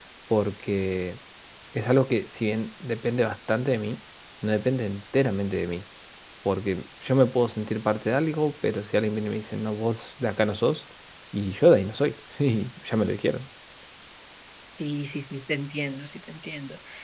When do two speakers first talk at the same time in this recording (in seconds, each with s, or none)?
none